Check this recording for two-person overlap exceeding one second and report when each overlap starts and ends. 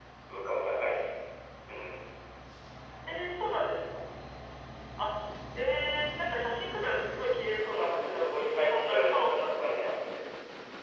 7.7-9.9

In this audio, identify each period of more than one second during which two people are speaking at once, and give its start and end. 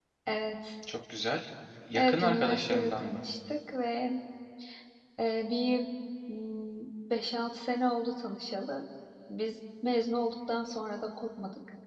1.9-3.2

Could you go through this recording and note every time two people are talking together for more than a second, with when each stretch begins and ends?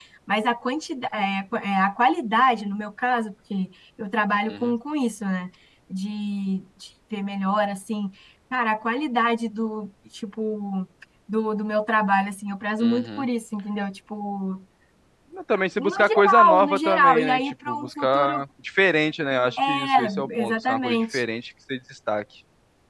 15.8-18.4, 19.6-21.2

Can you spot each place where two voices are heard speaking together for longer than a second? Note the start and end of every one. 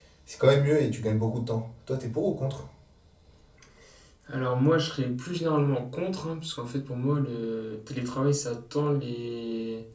none

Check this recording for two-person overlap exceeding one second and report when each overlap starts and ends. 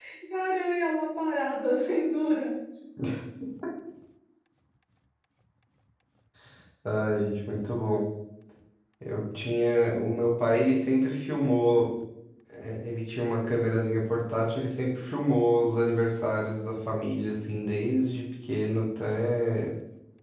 none

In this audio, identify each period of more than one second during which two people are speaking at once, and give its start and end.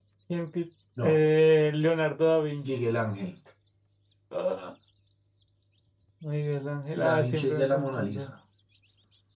7.0-8.3

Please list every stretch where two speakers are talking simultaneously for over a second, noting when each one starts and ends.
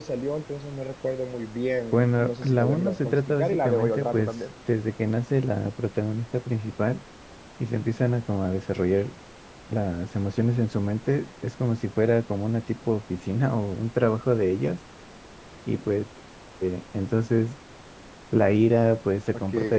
1.9-4.3

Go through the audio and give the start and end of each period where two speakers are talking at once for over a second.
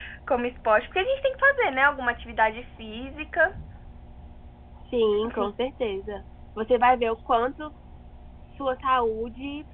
none

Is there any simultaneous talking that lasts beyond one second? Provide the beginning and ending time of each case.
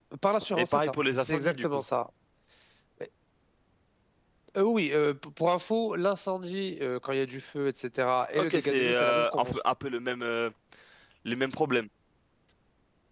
0.6-1.8, 8.4-9.6

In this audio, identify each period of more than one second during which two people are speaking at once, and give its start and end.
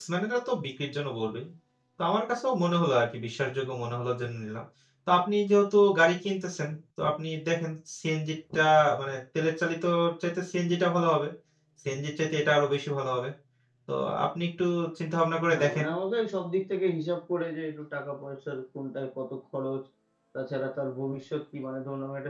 none

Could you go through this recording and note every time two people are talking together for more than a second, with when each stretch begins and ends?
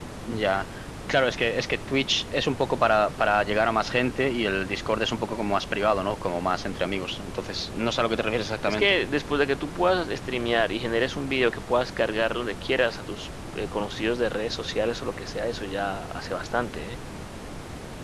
none

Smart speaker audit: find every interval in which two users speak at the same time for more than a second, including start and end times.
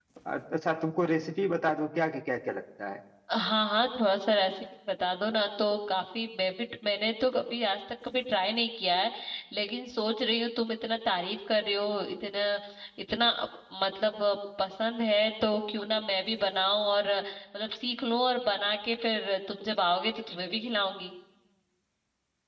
none

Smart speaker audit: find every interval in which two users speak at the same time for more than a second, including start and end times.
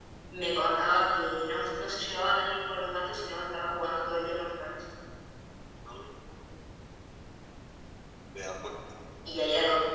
none

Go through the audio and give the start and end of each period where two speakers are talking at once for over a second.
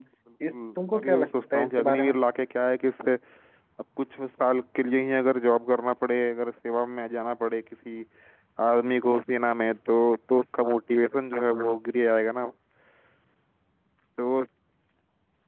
0.5-2.1

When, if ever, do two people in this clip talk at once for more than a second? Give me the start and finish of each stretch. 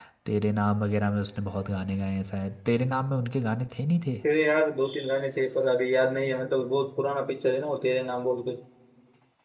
none

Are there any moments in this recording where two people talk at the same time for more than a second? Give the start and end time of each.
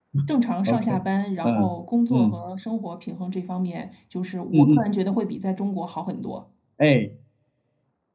none

